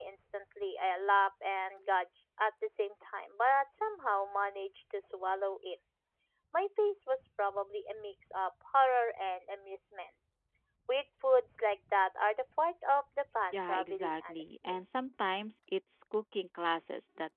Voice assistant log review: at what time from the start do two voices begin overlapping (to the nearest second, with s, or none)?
14 s